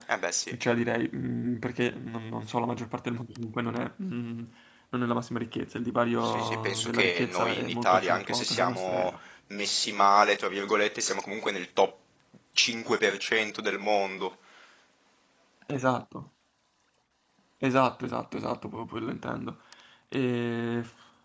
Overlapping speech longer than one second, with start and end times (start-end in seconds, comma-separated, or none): 6.2-9.1